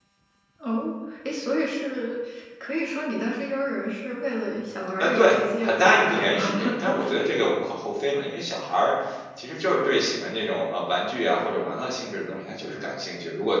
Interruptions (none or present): present